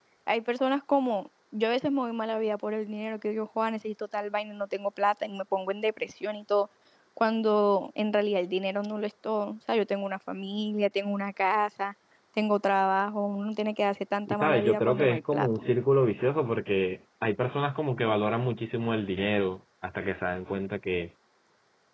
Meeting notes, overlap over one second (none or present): present